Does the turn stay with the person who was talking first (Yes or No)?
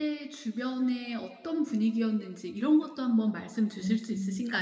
No